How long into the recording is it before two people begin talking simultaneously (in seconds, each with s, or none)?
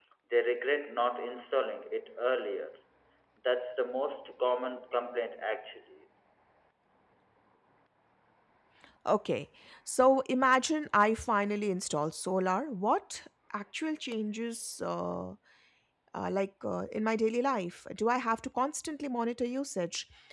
none